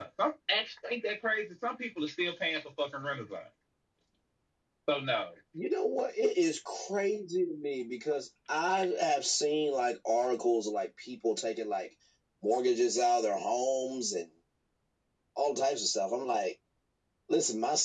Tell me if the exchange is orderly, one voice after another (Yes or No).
Yes